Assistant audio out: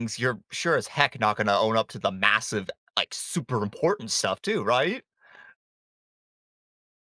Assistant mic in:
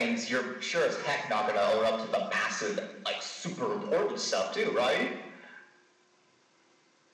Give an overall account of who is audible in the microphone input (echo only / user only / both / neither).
echo only